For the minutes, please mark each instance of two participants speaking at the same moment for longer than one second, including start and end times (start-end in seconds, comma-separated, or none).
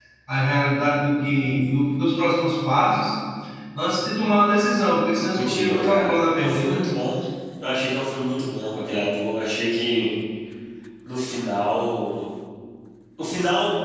5.3-6.8